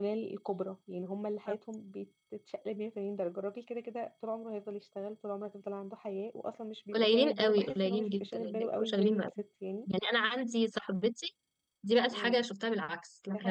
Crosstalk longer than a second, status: present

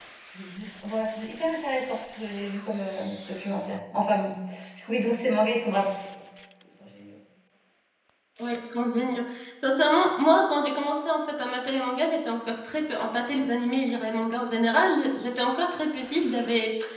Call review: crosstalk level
none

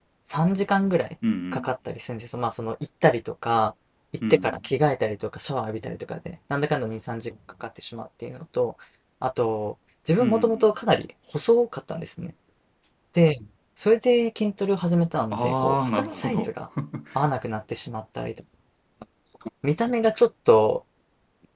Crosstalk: present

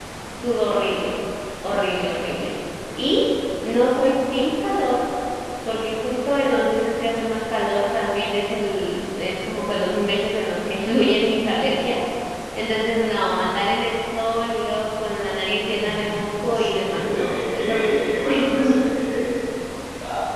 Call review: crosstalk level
present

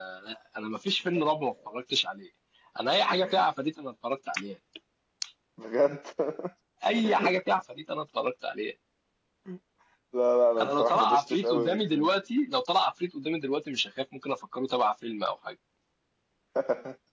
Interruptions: present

